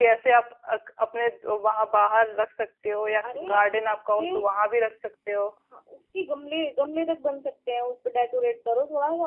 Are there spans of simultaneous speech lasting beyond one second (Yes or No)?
No